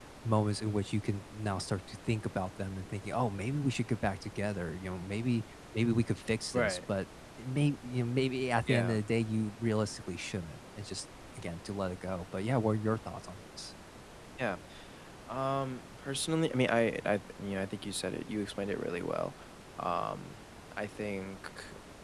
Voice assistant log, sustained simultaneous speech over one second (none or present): none